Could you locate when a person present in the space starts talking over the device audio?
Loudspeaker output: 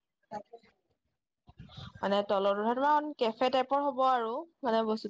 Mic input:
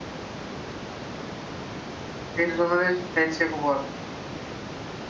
2.4 s

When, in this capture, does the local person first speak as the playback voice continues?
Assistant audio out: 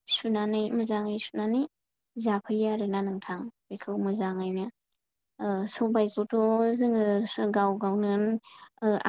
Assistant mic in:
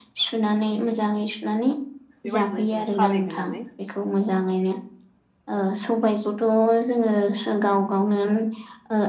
2.2 s

